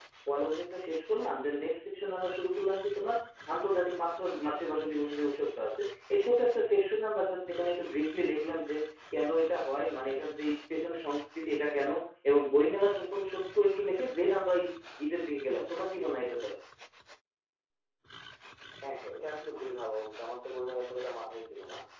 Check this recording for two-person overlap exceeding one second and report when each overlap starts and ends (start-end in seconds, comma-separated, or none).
none